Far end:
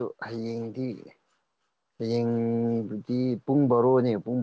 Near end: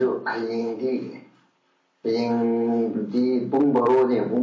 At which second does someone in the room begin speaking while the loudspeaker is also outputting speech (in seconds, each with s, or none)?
none